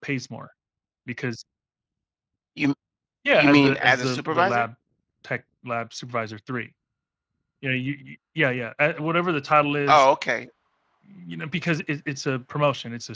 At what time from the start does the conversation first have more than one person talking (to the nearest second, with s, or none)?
3 s